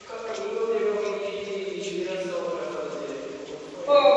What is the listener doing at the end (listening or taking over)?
taking over